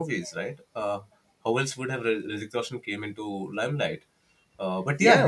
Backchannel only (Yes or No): No